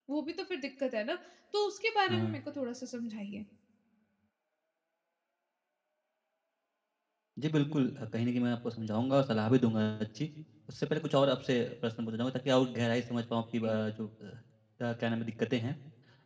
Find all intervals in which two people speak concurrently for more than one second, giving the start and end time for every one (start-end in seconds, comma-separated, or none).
none